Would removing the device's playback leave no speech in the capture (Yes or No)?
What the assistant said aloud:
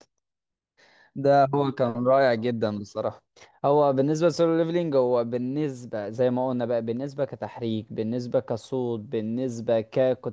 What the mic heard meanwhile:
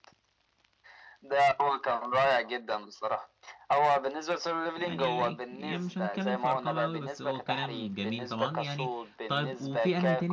No